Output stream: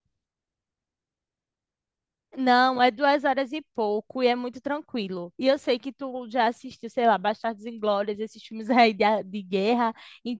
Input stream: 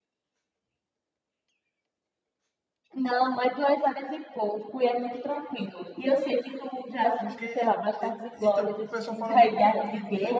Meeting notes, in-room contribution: present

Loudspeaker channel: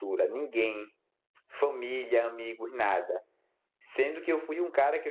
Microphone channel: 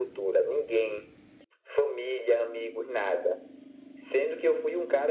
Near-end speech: none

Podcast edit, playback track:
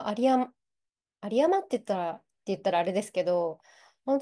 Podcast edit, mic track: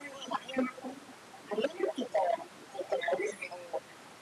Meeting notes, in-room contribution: none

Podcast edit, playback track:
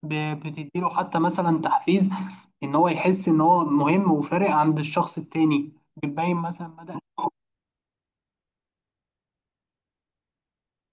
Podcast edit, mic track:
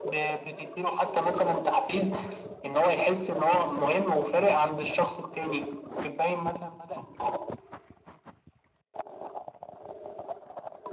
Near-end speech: none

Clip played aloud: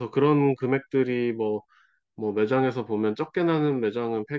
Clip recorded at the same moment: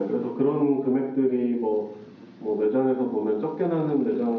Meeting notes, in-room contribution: none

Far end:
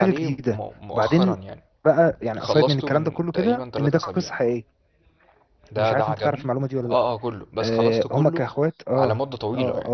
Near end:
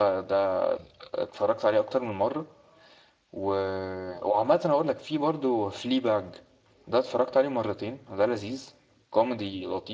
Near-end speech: present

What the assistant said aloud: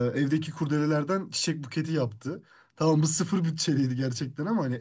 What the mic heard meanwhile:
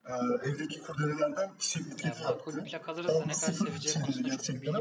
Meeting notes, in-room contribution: present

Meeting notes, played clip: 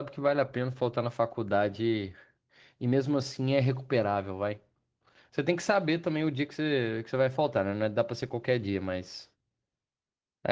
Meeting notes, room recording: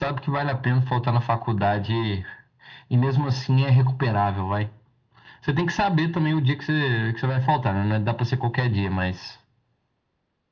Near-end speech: none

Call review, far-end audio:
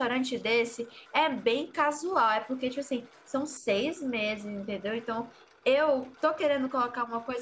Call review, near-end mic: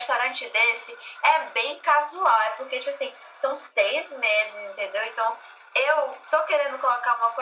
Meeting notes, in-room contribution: none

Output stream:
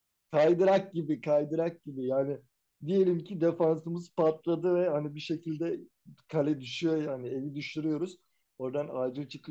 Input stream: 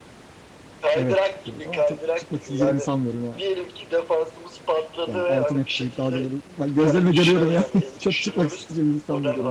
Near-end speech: present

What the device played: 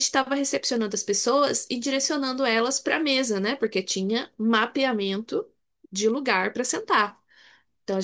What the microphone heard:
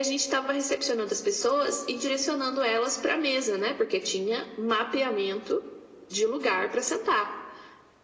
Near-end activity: none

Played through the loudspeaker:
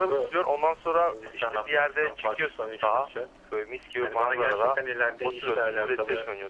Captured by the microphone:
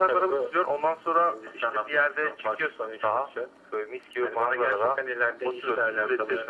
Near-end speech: none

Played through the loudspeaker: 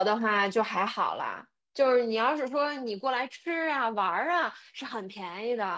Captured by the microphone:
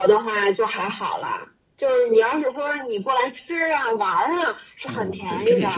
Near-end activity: present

